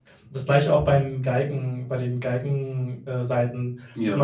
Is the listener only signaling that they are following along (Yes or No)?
Yes